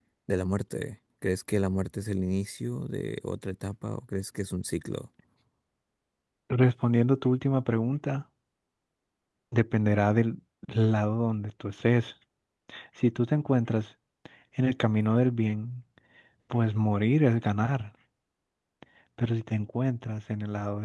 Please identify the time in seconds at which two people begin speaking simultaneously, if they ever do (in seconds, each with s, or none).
none